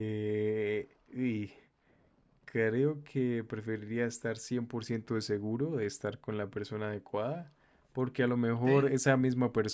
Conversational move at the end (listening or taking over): listening